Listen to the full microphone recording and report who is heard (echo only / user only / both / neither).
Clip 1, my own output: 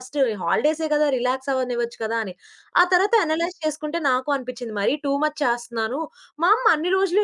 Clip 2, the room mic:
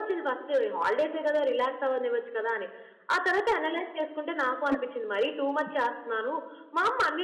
both